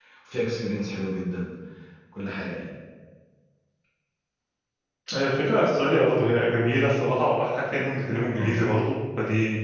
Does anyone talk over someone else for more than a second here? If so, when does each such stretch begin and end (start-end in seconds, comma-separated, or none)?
none